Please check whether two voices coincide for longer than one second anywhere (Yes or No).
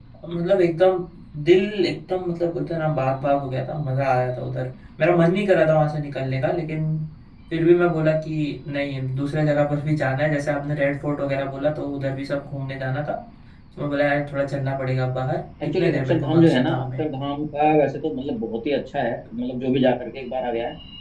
Yes